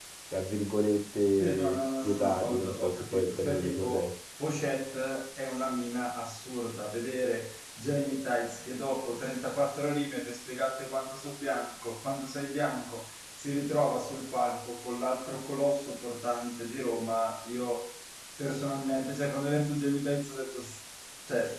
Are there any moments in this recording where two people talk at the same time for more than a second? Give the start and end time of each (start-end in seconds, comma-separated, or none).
1.4-4.1